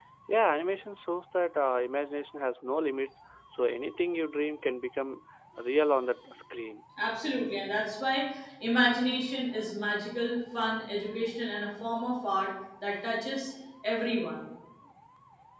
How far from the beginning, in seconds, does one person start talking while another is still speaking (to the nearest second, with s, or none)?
none